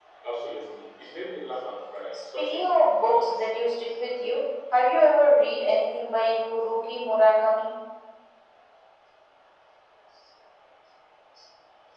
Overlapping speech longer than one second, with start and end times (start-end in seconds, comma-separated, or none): 2.1-3.5